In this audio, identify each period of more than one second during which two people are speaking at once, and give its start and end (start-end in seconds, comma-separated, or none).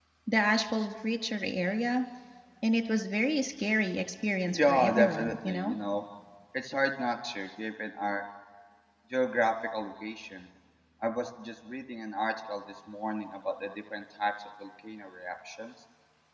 4.5-5.7